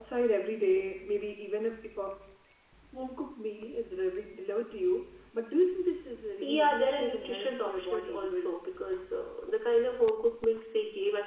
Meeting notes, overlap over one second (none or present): present